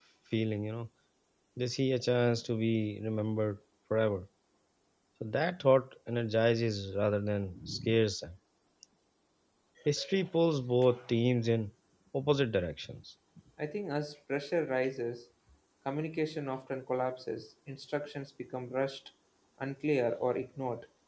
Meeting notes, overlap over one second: none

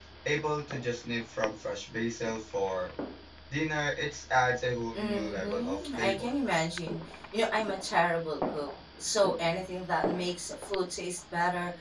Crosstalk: present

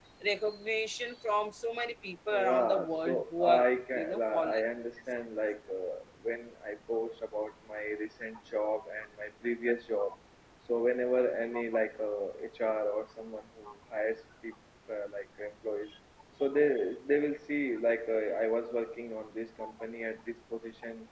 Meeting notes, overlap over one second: present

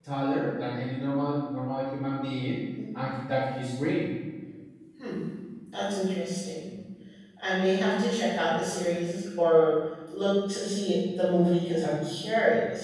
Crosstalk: none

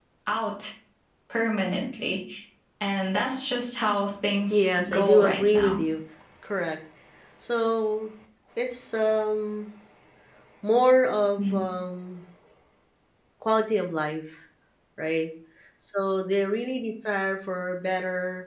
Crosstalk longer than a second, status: present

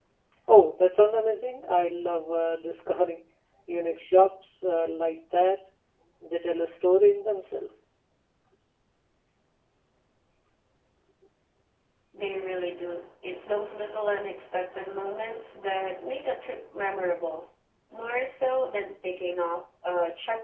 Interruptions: none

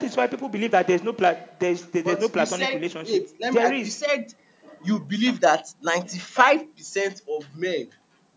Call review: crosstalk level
present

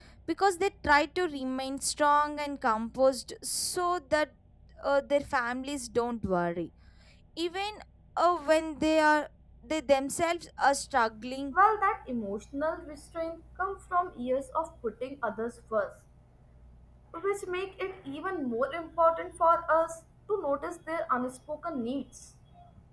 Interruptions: none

